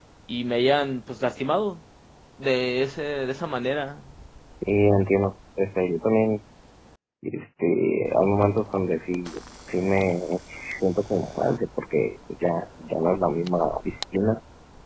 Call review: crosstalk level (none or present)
none